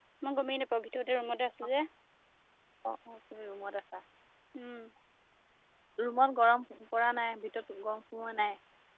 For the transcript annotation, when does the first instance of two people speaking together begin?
none

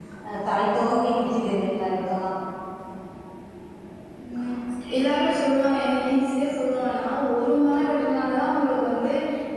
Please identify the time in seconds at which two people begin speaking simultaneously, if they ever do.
none

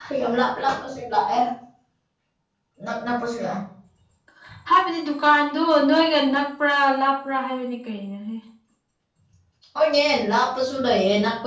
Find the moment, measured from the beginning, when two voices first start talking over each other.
none

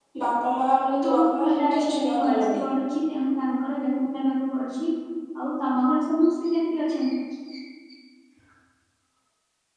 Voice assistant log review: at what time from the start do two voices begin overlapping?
1.0 s

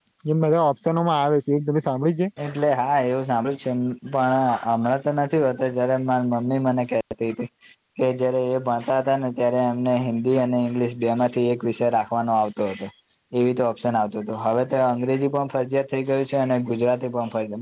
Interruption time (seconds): none

